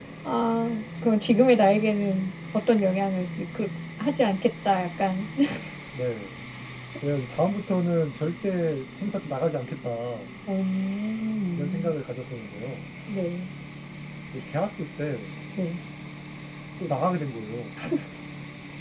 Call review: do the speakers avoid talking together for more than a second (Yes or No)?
Yes